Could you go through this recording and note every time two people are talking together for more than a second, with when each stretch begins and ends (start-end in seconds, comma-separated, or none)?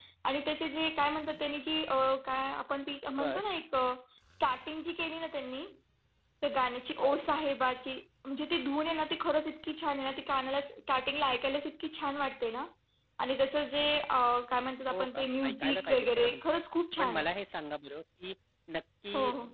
14.9-16.4